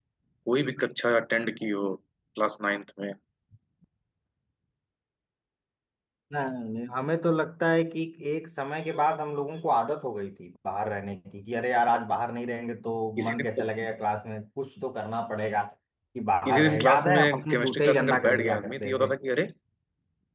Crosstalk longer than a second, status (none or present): present